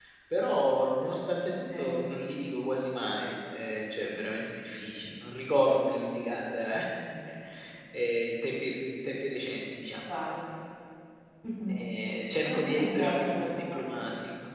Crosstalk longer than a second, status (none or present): present